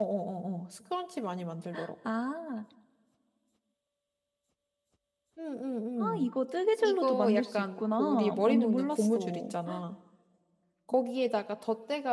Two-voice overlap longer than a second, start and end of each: 6.8-9.5

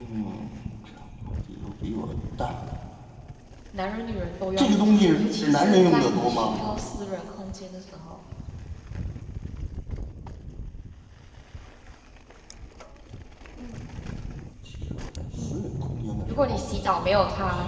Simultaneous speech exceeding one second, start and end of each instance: 4.6-6.6

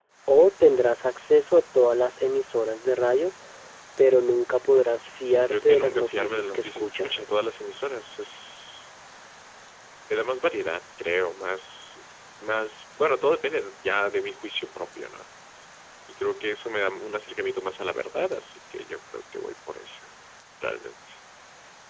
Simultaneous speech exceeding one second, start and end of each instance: 5.5-7.2

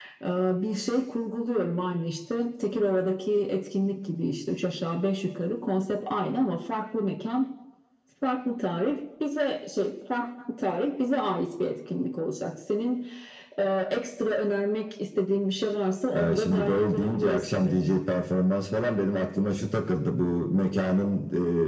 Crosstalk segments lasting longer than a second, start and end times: 16.1-17.8

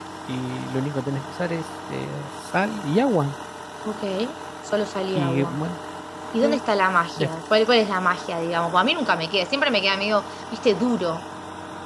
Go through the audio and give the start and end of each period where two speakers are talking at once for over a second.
none

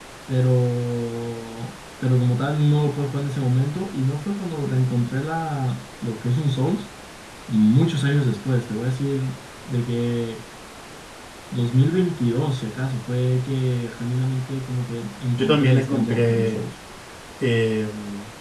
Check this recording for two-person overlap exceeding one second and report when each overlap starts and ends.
15.4-16.6

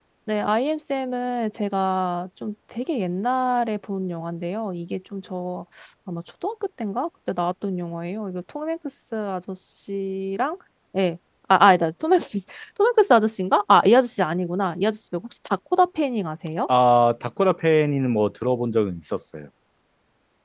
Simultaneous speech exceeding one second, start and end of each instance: none

